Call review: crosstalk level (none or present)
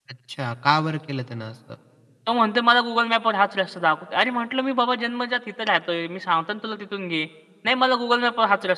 none